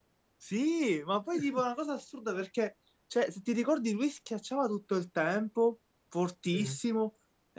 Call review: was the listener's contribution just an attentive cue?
Yes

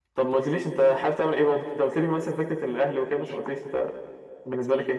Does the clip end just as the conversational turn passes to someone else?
Yes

